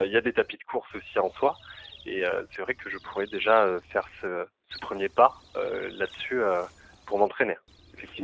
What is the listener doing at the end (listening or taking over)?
taking over